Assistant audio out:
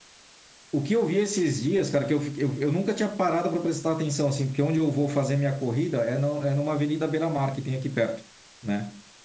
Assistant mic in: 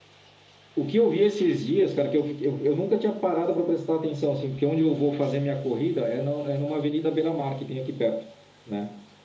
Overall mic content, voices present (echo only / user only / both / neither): echo only